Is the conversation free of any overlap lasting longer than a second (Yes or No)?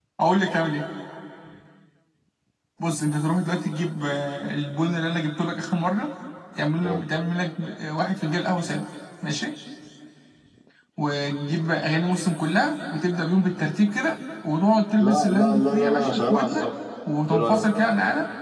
No